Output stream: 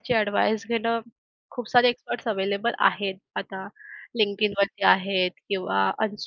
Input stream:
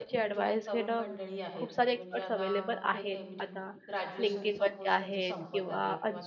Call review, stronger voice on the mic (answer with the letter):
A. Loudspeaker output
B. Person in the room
A